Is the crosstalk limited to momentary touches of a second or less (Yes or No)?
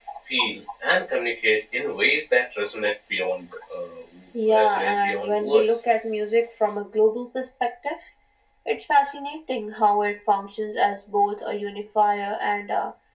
No